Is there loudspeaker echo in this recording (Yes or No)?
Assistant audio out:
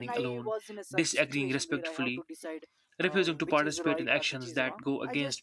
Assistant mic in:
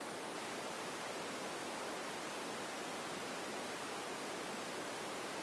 No